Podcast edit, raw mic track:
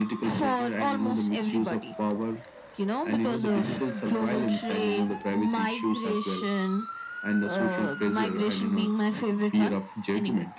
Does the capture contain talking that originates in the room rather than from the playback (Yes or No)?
No